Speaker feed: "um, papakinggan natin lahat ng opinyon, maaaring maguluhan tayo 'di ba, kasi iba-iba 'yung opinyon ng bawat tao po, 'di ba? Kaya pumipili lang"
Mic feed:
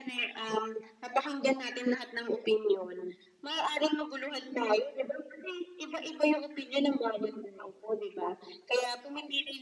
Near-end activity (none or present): none